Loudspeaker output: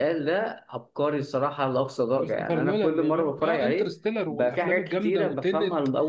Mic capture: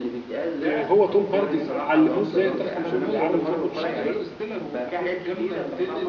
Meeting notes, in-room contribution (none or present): present